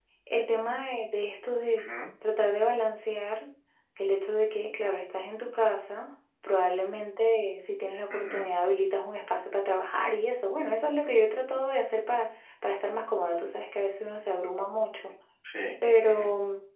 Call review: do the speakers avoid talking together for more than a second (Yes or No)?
Yes